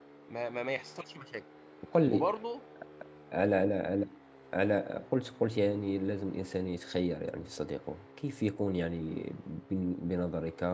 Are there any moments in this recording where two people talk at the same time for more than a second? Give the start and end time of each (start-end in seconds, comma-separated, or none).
none